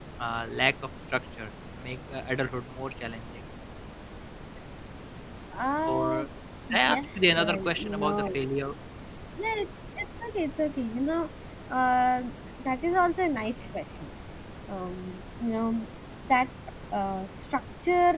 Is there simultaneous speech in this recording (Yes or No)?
Yes